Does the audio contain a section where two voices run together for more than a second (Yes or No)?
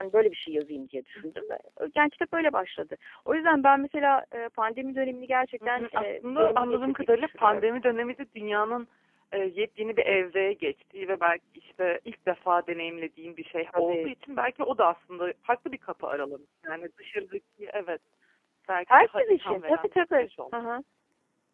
Yes